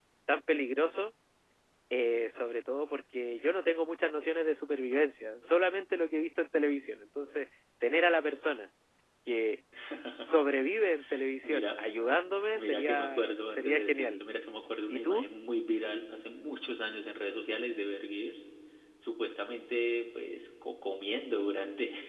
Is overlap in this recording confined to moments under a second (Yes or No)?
No